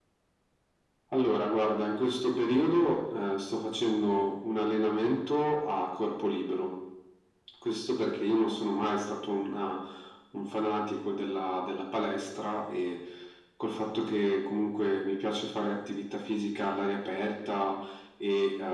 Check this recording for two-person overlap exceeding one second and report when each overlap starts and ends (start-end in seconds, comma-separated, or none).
none